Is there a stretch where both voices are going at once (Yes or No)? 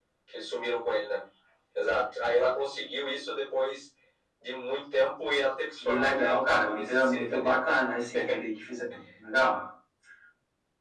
Yes